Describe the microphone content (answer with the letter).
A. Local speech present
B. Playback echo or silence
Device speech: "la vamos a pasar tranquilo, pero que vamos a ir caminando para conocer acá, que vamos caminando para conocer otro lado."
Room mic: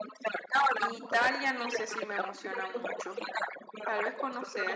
A